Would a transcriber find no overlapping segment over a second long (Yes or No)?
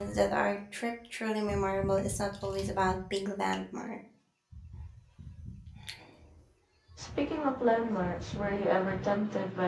Yes